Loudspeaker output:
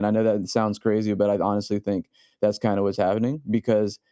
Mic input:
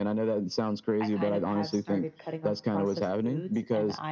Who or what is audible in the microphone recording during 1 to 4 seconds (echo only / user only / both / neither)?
both